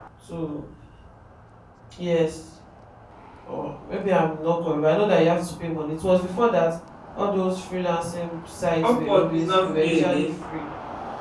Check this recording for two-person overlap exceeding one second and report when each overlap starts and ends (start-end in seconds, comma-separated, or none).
8.8-10.3